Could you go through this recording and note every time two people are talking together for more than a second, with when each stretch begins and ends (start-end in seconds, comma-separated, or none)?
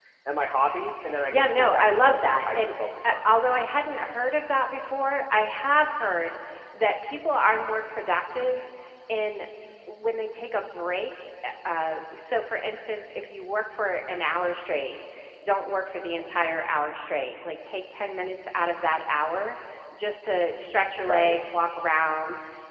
1.3-3.4